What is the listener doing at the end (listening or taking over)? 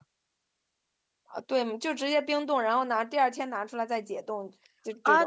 taking over